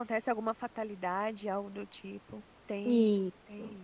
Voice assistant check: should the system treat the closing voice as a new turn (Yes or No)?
Yes